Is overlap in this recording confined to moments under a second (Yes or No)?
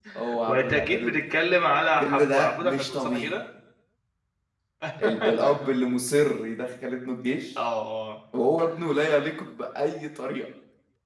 No